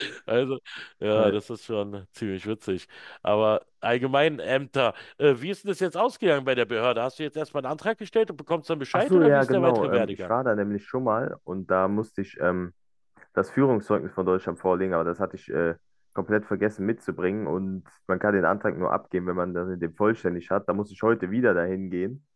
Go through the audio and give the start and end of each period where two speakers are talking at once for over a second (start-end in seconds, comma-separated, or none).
8.9-10.3